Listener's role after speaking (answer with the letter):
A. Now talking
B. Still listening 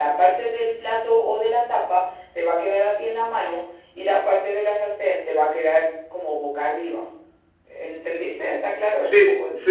A